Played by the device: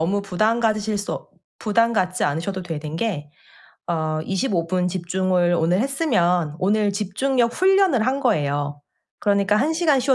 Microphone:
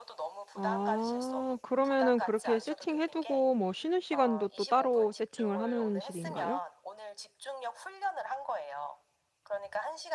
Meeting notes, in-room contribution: present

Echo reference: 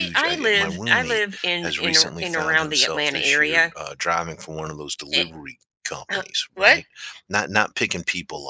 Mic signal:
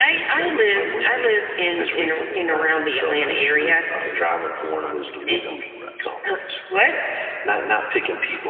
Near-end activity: present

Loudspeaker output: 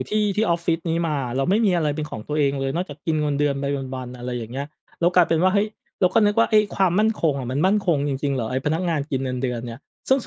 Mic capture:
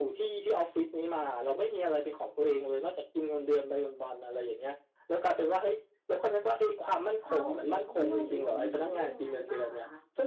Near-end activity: present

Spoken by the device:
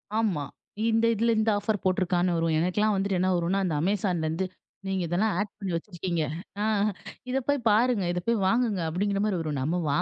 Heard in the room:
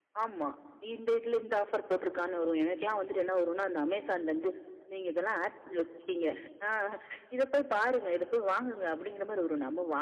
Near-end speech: none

